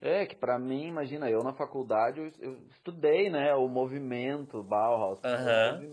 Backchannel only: Yes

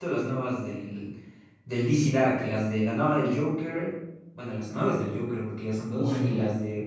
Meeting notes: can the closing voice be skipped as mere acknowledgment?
No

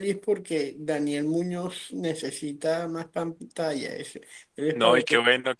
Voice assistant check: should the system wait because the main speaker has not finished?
No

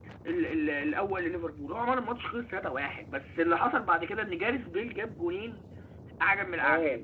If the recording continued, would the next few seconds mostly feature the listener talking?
No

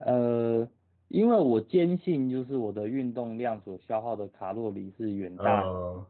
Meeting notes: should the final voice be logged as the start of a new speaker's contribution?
No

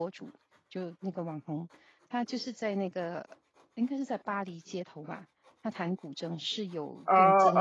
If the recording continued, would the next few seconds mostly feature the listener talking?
Yes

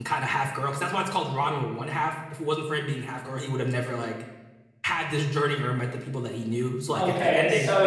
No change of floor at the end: No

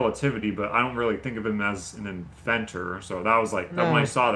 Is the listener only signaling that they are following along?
Yes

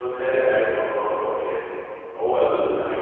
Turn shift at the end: No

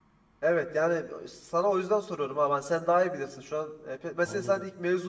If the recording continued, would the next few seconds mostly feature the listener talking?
No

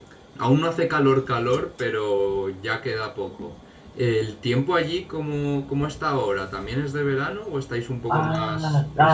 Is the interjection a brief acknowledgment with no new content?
No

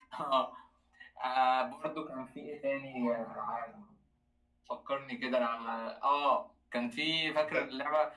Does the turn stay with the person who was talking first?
Yes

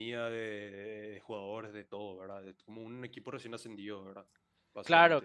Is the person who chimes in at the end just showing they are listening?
No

